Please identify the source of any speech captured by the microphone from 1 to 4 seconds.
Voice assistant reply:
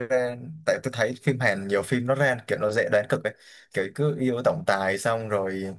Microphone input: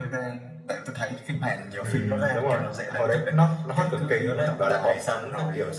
both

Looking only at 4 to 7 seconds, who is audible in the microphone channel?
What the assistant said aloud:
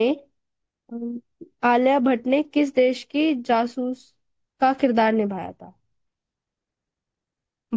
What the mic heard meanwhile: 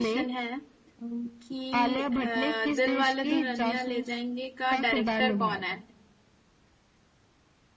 both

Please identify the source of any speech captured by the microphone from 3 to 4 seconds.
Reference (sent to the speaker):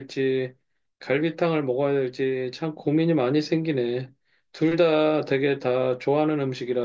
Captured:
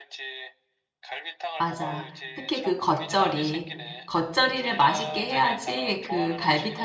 both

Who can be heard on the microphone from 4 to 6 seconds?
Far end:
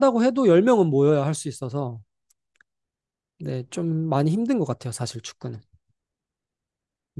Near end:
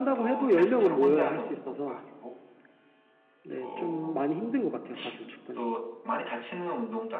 both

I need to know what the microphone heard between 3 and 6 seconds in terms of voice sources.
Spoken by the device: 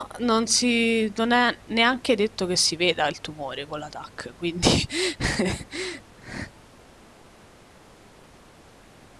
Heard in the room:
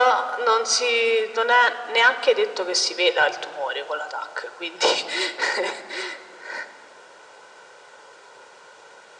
echo only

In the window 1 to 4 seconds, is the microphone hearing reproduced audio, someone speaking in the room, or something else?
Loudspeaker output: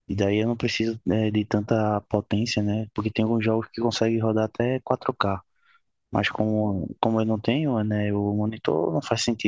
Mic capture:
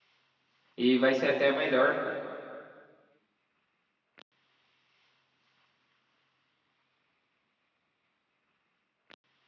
user only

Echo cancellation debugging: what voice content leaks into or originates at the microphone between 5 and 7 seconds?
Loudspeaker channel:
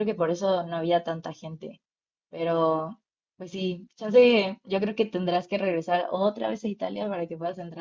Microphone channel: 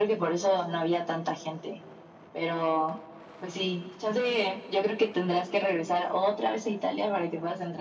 echo only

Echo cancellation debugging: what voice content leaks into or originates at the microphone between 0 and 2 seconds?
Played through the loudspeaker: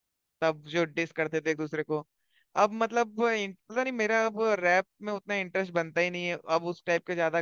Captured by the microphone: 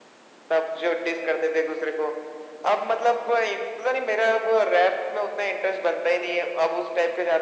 echo only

